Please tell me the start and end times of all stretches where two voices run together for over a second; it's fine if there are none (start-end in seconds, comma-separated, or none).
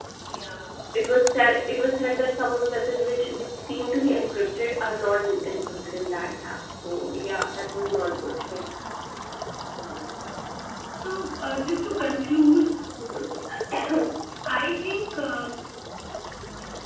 none